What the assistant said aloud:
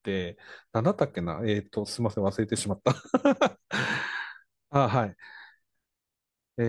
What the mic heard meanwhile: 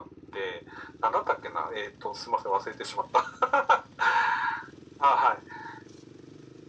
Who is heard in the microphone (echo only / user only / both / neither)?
echo only